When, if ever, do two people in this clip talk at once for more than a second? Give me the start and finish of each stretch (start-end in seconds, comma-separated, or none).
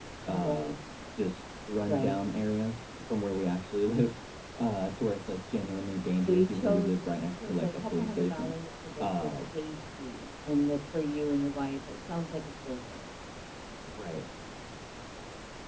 6.2-8.5